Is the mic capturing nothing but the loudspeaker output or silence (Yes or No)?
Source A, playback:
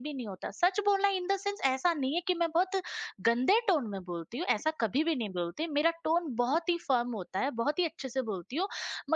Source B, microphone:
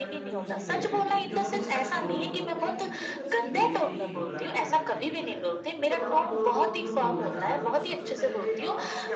No